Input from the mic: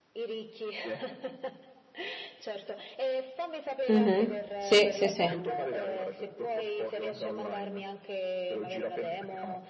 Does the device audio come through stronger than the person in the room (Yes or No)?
No